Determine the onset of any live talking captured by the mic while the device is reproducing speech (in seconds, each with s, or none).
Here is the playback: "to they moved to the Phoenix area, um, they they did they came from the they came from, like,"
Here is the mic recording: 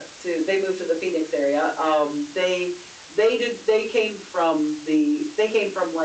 none